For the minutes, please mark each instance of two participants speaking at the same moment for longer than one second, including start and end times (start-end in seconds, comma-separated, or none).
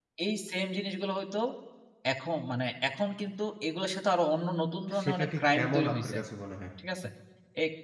4.9-6.2